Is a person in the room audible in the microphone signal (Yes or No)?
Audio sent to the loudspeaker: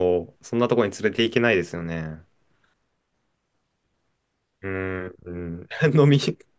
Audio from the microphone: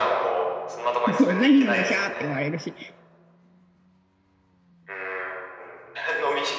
Yes